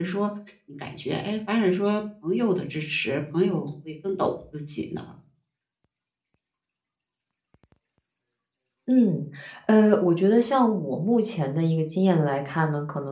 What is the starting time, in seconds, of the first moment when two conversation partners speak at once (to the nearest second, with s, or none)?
none